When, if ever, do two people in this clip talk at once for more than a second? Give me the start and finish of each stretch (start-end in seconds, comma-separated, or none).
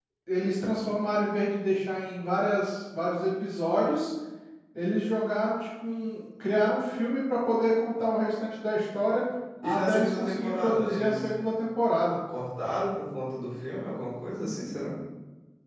9.6-11.3